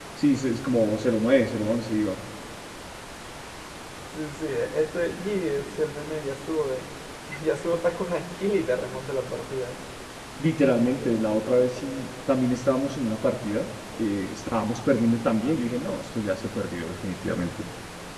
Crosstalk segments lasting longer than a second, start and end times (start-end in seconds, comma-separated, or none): none